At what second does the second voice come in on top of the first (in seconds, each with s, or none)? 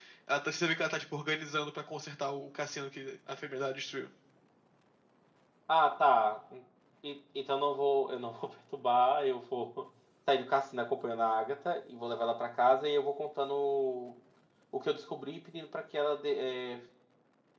none